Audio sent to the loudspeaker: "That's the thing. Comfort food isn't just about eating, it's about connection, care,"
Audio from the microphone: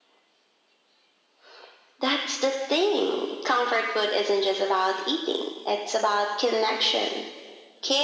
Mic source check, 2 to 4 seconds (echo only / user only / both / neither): echo only